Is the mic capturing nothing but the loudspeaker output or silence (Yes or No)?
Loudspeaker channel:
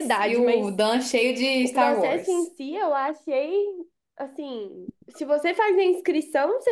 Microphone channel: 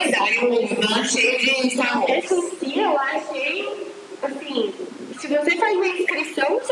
Yes